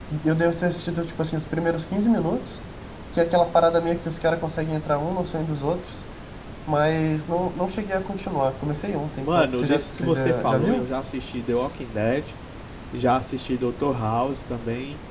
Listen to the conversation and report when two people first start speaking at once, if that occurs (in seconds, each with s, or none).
9.2 s